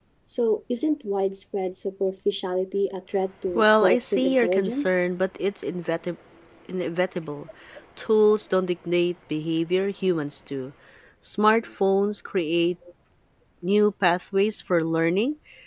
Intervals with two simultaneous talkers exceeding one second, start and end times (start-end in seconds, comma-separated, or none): 3.5-5.0